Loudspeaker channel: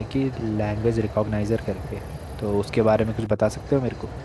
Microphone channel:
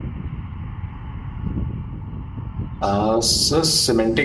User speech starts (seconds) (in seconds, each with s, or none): 2.9 s